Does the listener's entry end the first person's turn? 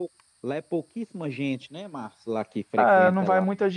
Yes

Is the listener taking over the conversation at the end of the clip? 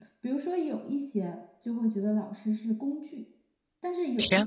No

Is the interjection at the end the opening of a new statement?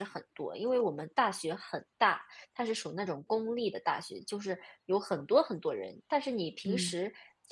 No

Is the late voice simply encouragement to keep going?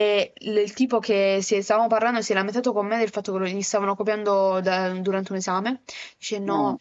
Yes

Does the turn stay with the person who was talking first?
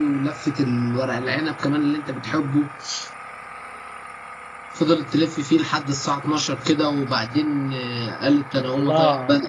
No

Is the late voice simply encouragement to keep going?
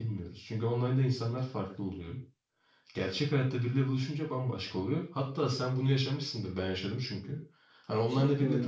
Yes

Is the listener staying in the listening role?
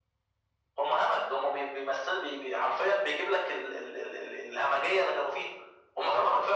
No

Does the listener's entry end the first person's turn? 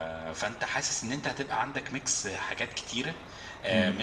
No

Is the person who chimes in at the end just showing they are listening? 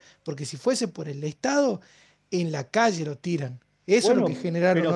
No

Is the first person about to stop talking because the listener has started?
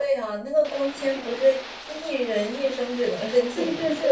Yes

